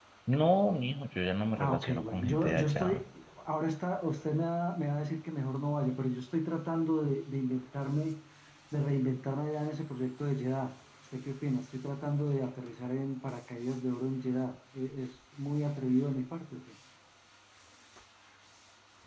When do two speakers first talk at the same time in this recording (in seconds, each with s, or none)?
1.6 s